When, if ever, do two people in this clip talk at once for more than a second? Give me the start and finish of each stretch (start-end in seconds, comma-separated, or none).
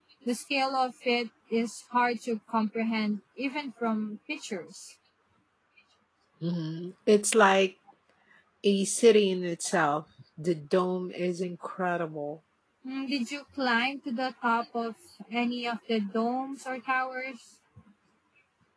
none